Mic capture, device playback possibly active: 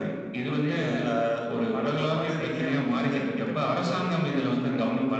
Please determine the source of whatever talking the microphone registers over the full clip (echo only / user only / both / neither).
echo only